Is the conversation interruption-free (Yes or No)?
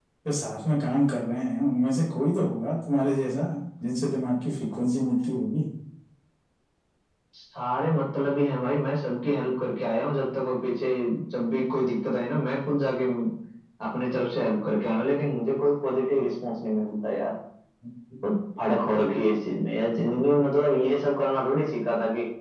Yes